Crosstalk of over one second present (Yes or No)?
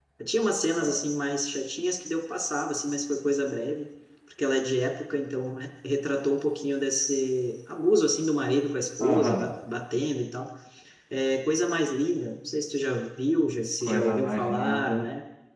Yes